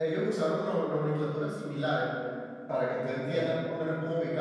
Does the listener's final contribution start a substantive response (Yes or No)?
No